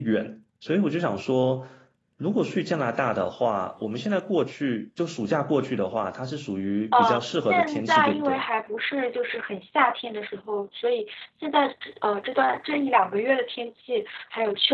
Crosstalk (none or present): present